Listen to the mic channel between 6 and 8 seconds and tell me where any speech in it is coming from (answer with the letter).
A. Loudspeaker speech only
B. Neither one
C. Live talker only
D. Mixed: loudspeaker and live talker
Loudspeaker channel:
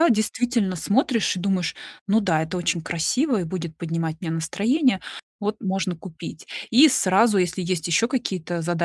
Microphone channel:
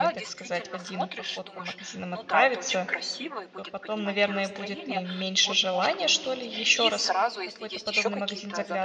D